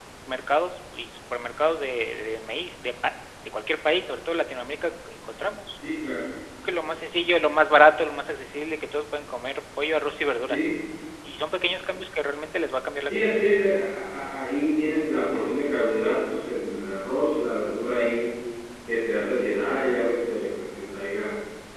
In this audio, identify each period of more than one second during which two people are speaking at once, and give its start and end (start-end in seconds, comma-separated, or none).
none